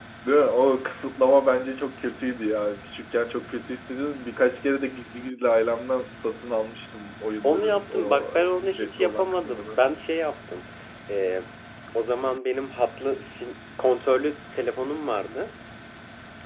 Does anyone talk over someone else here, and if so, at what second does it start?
7 s

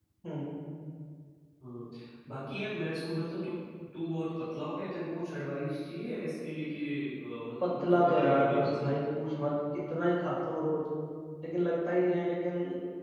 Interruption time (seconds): 8 s

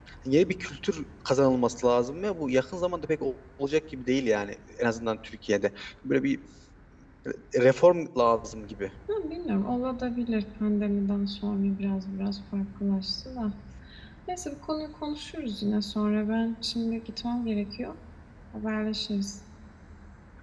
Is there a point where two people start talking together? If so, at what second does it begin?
none

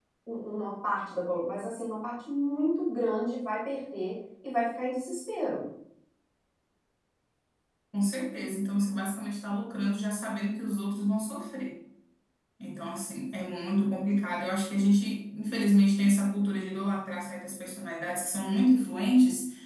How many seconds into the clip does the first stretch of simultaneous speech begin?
none

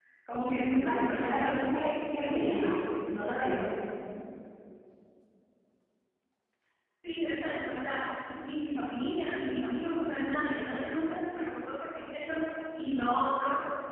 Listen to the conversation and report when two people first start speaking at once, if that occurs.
1 s

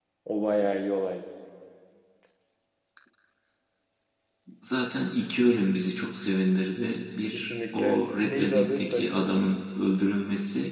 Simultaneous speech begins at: 7 s

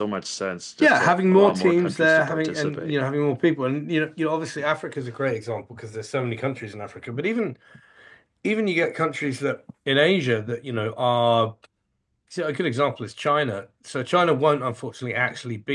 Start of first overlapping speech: 1 s

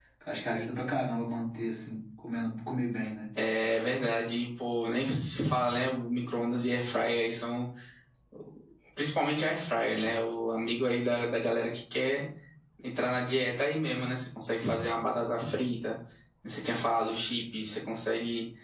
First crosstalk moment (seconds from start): none

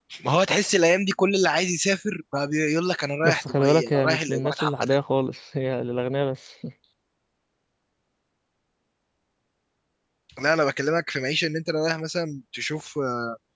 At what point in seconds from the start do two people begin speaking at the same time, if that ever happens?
3 s

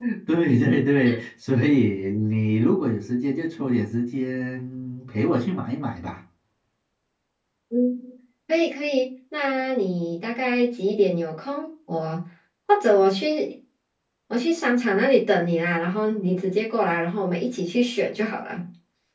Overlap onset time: none

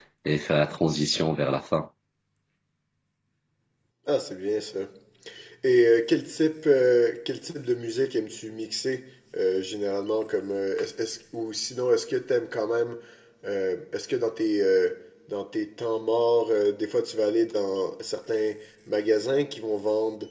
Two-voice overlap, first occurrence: none

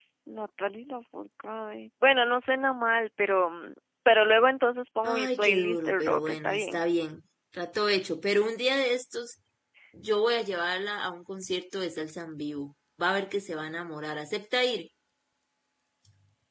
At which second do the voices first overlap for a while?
5 s

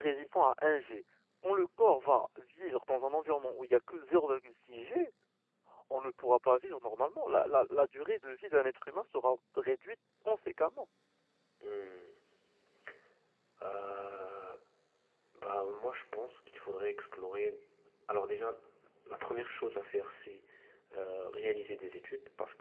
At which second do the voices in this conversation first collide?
none

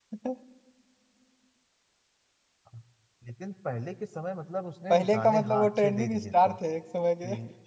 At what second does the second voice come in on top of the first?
5 s

